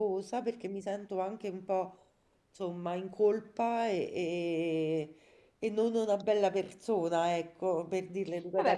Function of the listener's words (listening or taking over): taking over